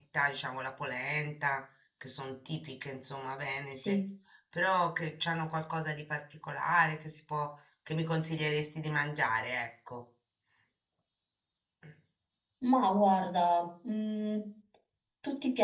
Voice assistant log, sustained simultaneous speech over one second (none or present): none